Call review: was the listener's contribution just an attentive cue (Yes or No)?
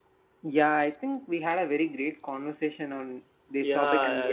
No